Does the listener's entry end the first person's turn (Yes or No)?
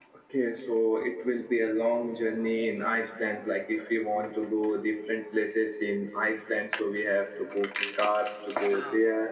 No